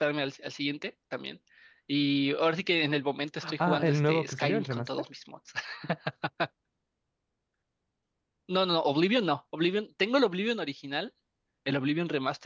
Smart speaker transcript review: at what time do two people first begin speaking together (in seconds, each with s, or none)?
3.4 s